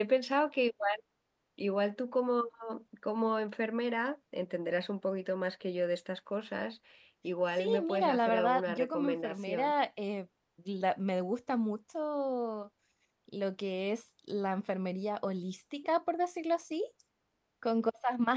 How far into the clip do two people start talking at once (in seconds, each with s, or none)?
7.5 s